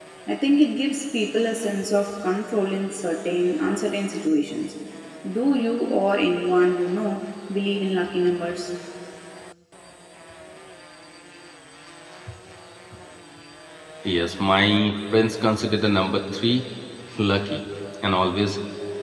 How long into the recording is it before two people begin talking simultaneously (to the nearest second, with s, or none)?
none